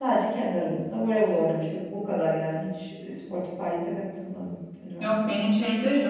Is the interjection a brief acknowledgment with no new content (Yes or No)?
No